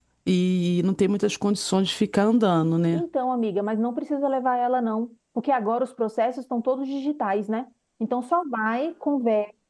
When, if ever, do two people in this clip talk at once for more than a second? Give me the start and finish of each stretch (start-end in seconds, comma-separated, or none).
none